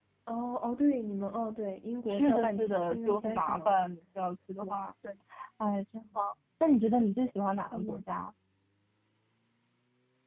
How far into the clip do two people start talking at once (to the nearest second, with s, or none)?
2 s